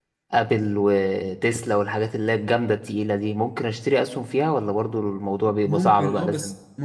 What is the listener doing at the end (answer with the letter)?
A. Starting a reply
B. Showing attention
A